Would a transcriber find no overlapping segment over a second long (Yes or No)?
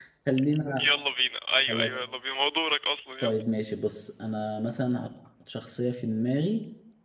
Yes